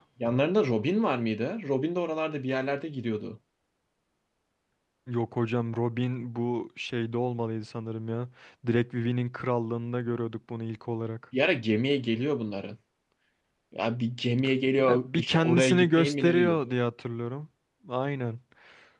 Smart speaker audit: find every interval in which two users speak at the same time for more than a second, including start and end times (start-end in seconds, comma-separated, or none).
14.8-16.6